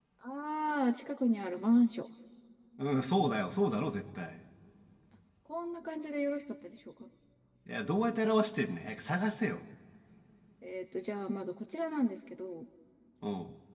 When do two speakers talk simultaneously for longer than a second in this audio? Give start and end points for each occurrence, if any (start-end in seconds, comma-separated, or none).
none